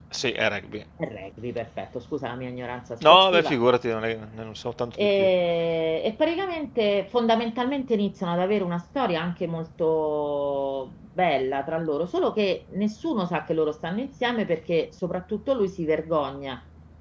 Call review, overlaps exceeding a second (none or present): none